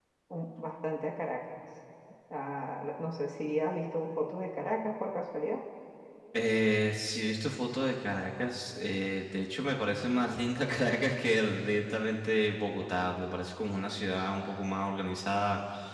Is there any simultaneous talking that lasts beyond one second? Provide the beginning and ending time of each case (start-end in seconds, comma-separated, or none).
none